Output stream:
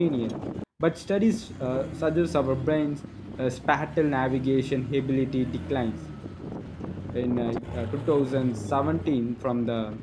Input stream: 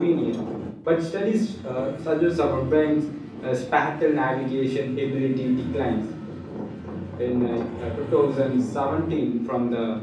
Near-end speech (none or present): none